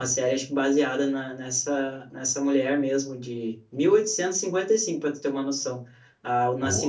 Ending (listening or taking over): listening